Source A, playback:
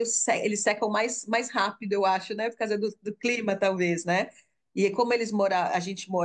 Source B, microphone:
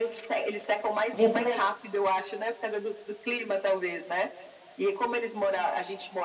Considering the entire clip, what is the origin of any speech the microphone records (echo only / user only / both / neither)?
both